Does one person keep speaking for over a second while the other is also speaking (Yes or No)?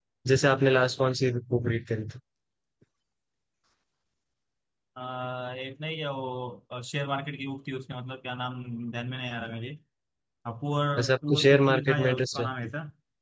Yes